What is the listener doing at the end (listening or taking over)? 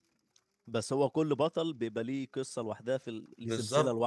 taking over